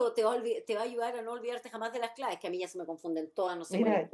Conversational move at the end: taking over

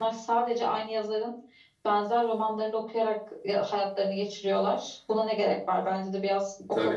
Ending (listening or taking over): taking over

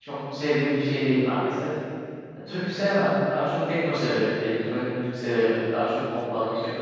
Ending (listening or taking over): listening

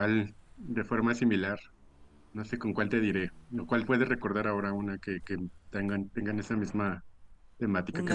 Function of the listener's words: taking over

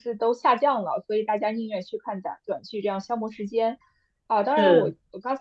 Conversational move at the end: listening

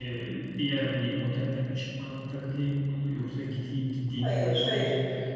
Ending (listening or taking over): listening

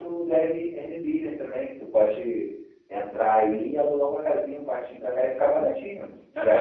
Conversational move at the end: taking over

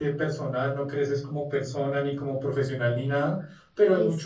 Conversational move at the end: listening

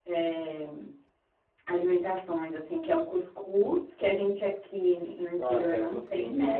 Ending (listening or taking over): taking over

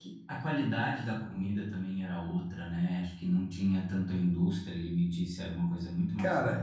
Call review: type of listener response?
taking over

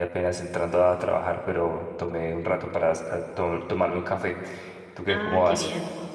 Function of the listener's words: taking over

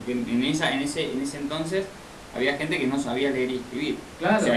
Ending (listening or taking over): listening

